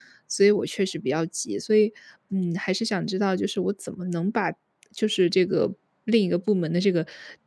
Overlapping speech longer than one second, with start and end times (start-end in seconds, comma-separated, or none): none